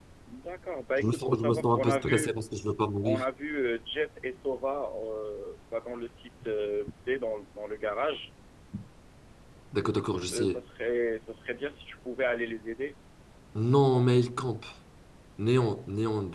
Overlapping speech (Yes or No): Yes